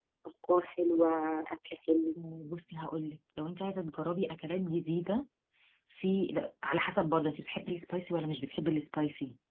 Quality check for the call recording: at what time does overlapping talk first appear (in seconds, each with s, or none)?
none